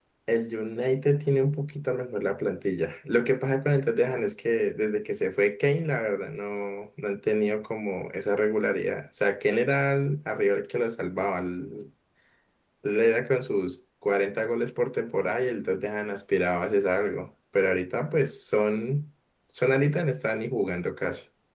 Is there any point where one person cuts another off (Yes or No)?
No